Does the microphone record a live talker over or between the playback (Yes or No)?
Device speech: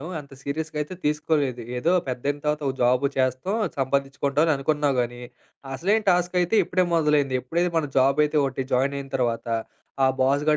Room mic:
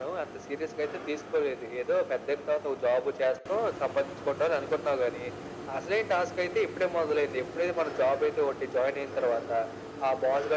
No